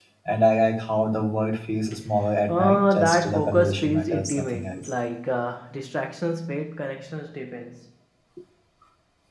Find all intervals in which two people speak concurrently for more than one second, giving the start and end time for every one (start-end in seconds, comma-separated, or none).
2.5-4.9